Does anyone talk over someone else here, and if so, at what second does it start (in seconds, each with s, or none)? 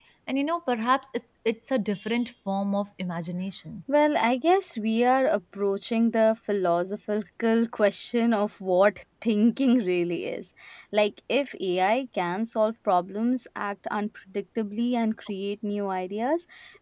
none